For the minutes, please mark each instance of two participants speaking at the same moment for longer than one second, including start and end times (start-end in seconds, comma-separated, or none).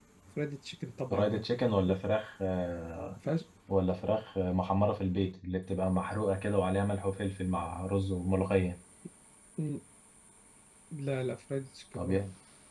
none